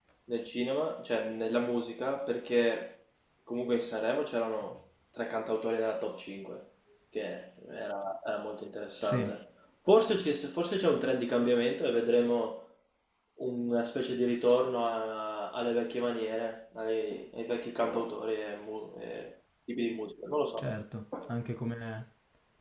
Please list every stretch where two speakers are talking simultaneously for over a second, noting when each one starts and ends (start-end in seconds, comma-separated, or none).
none